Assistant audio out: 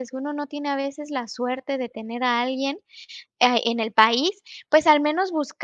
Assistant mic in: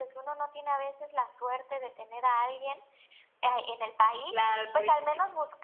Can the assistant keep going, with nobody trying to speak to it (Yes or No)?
No